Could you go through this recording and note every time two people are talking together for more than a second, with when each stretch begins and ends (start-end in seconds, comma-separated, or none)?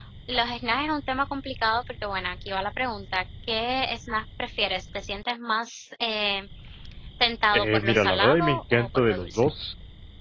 7.5-9.5